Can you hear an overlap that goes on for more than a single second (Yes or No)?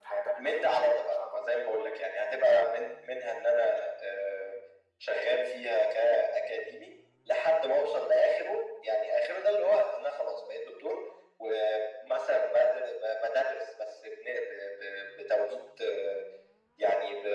Yes